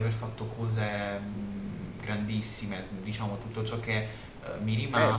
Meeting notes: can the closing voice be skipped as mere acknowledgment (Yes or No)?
No